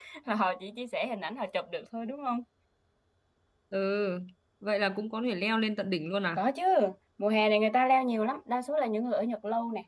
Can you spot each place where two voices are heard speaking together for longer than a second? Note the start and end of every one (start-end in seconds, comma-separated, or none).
none